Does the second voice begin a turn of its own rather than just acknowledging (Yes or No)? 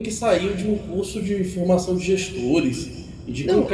Yes